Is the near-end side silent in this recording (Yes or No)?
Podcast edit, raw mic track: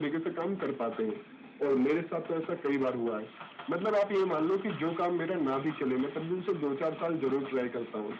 Yes